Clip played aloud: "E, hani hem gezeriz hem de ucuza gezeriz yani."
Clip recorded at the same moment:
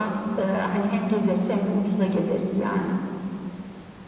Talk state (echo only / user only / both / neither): echo only